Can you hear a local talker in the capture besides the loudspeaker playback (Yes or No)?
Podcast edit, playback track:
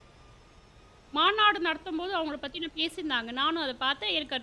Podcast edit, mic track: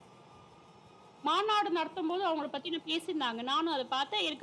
No